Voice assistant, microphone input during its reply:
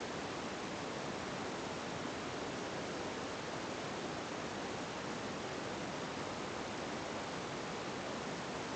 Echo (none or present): none